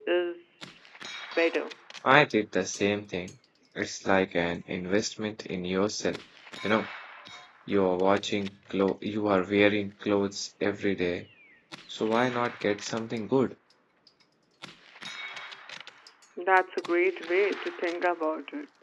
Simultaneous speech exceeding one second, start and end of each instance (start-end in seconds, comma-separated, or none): none